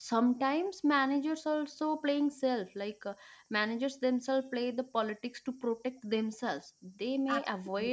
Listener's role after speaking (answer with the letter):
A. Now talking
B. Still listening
B